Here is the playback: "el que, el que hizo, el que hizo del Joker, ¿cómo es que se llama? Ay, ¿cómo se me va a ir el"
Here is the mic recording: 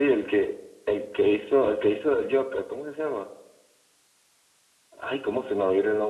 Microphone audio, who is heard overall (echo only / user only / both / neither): echo only